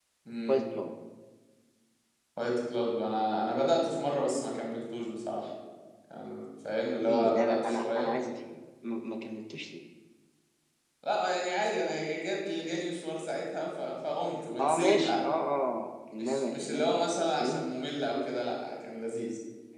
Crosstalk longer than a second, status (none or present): present